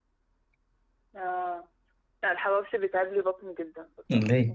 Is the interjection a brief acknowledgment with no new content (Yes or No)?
Yes